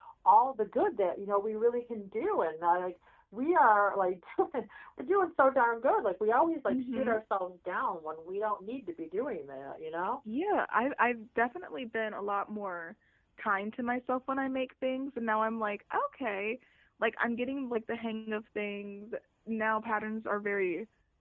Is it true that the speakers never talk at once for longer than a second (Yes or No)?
Yes